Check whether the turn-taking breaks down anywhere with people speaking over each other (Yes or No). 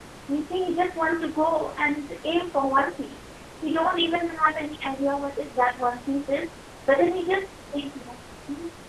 No